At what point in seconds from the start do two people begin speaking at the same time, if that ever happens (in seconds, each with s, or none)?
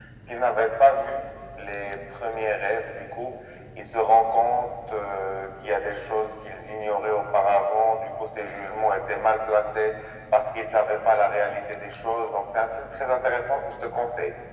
none